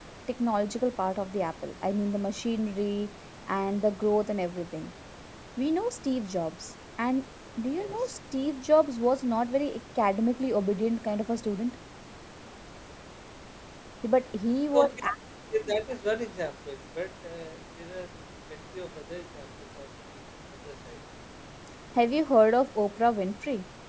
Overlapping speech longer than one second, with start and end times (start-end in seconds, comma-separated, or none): none